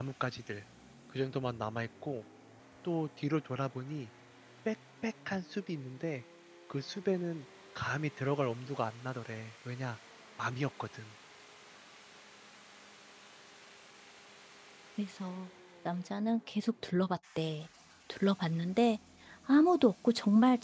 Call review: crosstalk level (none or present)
none